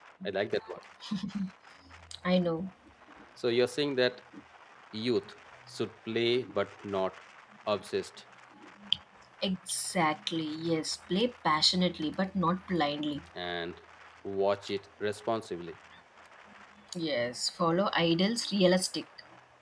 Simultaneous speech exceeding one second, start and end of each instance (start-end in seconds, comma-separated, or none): none